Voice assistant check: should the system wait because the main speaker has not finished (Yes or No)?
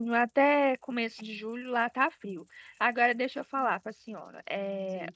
Yes